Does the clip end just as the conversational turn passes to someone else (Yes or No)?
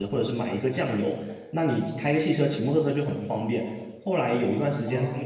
No